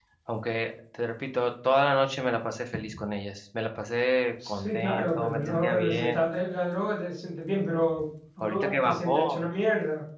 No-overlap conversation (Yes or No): No